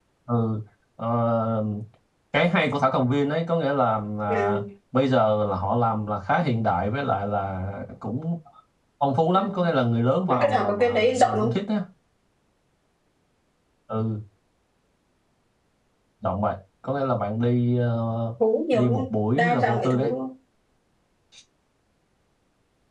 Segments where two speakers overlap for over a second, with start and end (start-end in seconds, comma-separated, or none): 10.3-11.6, 18.7-20.1